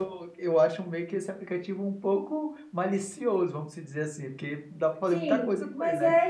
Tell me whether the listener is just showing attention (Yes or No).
No